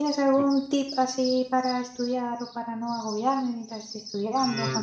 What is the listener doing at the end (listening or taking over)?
taking over